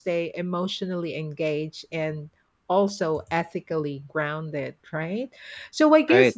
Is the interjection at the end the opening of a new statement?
No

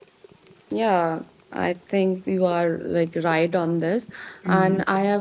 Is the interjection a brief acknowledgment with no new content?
Yes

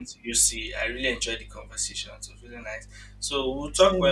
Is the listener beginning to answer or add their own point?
No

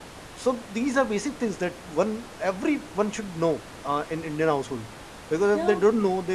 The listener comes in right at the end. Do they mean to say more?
No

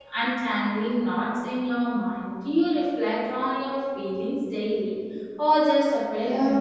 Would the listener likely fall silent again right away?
No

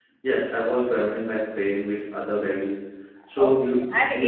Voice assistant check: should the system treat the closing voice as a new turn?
Yes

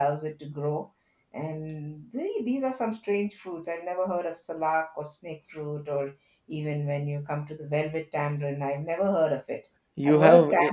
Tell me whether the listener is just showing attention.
No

